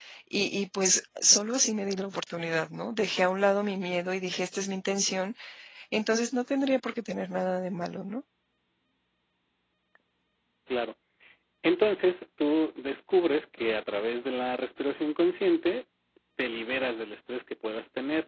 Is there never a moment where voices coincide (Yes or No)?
Yes